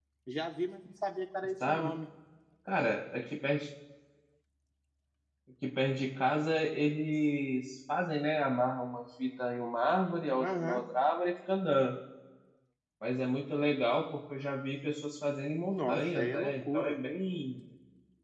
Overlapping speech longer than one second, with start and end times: 15.7-17.0

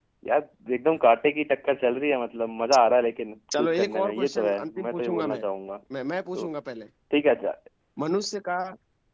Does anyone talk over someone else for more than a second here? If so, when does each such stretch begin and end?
3.6-5.4

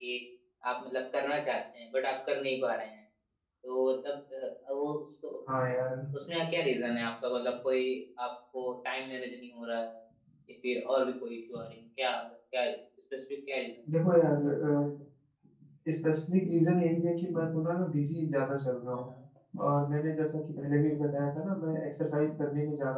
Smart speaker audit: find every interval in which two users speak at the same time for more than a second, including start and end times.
none

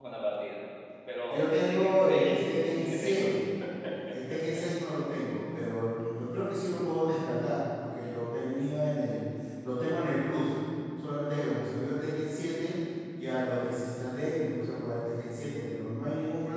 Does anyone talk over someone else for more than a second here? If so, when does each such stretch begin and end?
1.3-3.3

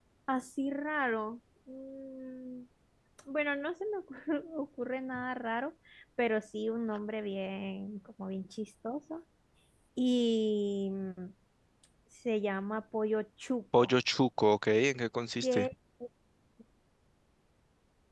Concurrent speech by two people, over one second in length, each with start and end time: none

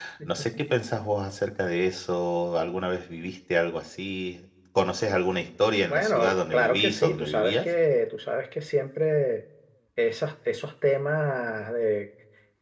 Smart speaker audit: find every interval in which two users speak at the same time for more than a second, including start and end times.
5.9-7.7

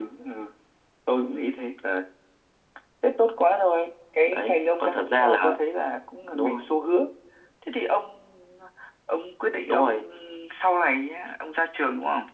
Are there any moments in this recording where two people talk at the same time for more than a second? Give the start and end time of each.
4.3-5.6

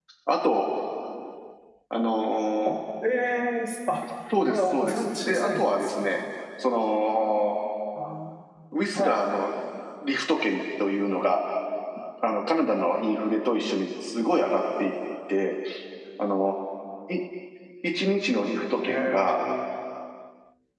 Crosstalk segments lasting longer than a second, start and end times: 4.4-6.1

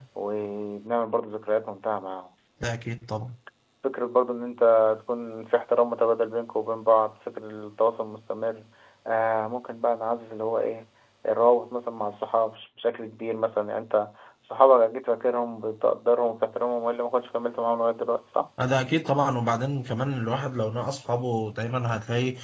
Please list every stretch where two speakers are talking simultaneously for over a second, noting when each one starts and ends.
none

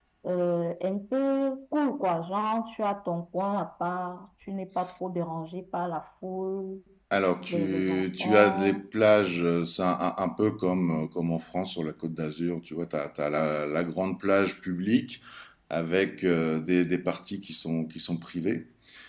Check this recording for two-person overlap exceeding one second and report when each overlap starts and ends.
7.5-8.8

